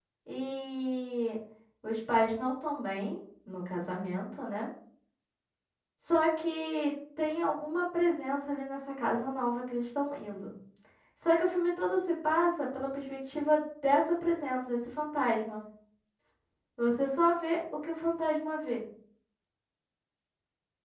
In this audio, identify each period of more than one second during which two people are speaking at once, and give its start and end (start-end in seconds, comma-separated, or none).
none